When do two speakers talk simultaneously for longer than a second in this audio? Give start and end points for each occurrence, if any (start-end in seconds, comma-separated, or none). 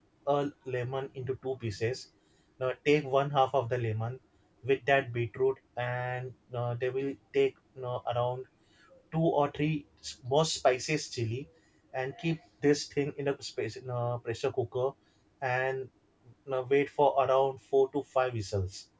none